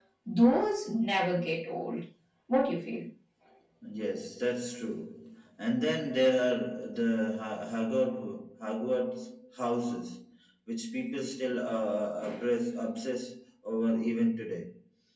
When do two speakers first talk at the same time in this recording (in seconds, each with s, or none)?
none